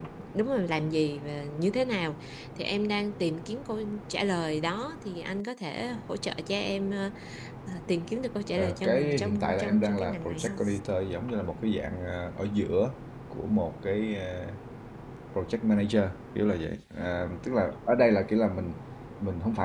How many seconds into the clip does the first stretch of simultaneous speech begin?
9 s

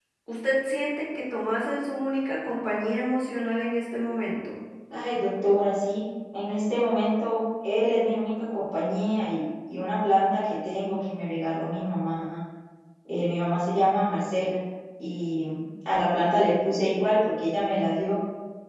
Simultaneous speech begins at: none

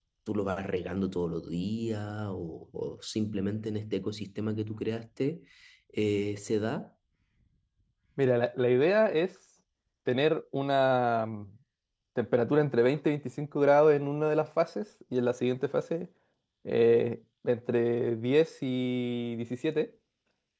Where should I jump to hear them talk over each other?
none

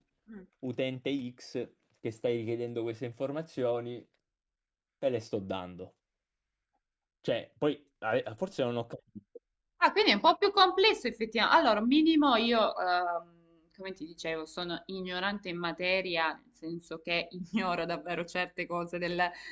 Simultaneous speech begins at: none

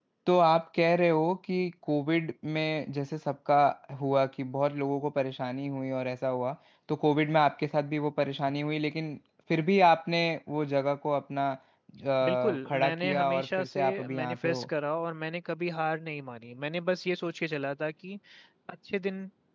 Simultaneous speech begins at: 12 s

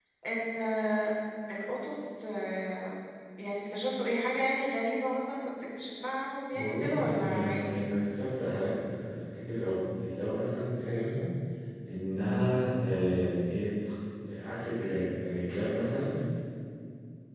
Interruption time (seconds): 7 s

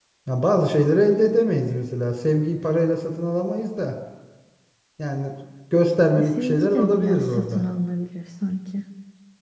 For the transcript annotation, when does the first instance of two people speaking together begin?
6 s

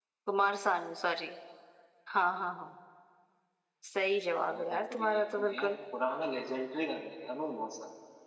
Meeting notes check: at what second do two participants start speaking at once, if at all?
4 s

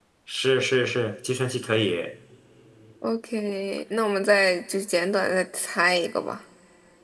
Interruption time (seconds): none

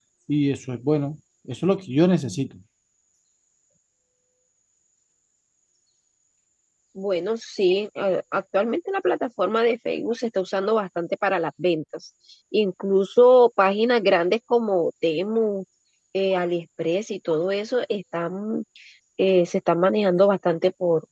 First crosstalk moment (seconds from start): none

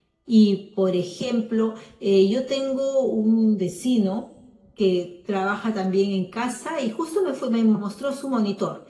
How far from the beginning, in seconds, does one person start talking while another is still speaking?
none

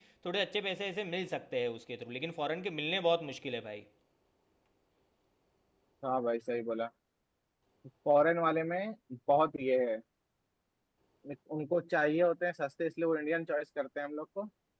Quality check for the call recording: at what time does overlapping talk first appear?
none

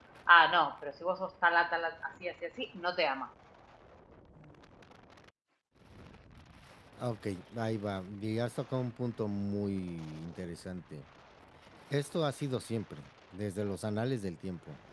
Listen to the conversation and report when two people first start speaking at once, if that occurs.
none

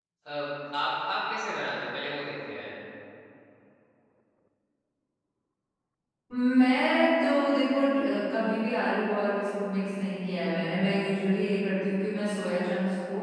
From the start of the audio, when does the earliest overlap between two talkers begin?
none

